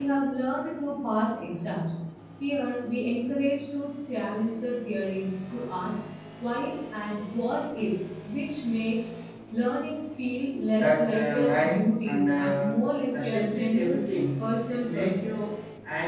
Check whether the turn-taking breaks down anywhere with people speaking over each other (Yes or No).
Yes